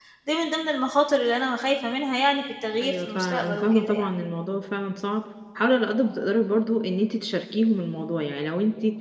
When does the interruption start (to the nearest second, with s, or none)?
3 s